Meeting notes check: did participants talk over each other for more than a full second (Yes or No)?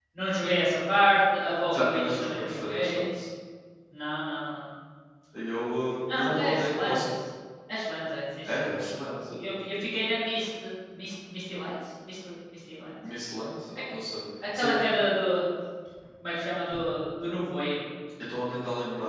Yes